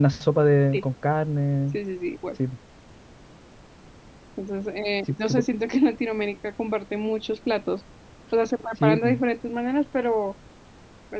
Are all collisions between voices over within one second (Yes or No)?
Yes